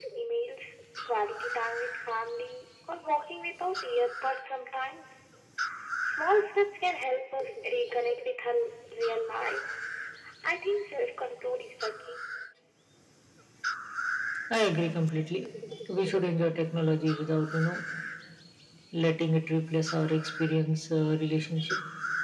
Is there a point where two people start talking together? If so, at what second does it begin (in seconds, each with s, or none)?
none